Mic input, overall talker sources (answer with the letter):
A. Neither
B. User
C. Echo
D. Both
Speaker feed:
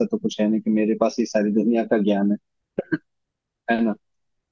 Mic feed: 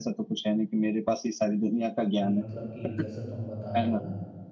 D